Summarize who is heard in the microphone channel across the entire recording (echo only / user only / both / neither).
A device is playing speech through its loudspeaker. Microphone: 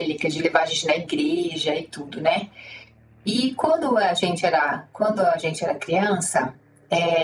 echo only